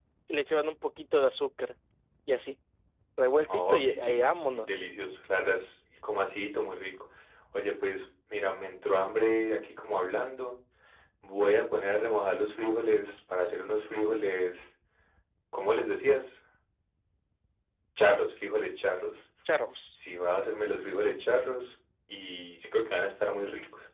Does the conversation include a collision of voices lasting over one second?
Yes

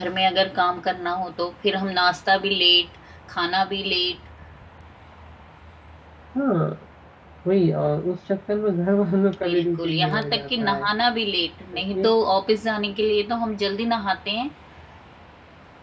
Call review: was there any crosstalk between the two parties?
Yes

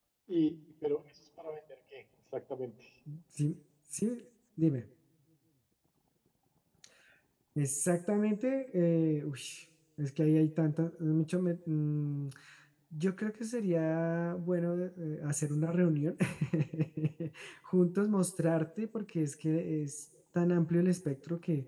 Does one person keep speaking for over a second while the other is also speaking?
No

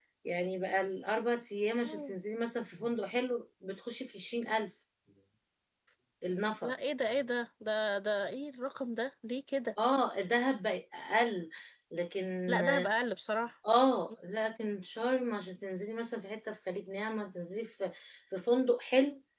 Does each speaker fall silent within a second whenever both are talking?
Yes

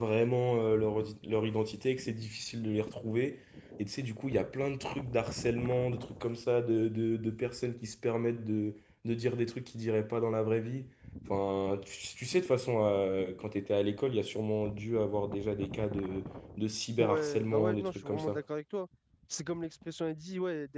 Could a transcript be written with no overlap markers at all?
No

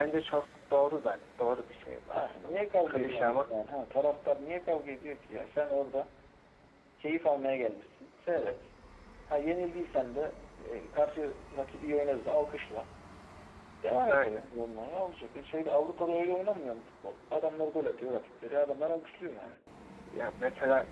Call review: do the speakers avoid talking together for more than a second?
No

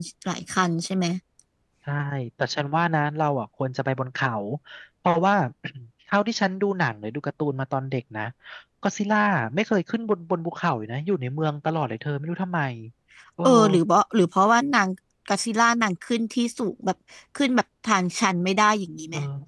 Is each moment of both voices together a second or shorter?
Yes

